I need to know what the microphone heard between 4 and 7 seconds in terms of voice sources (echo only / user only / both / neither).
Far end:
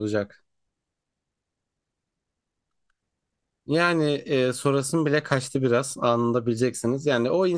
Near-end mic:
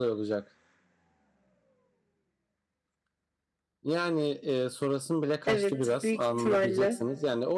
both